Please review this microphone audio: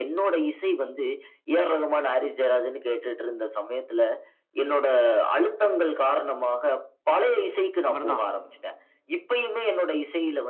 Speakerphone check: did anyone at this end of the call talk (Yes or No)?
Yes